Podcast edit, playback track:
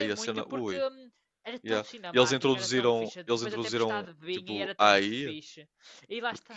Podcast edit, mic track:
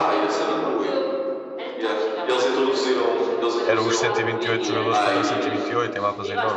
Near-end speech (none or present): present